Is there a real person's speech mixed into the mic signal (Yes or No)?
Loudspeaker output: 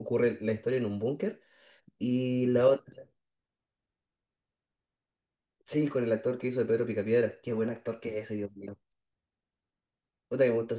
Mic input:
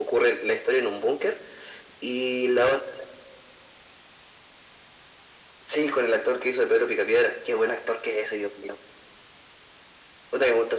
No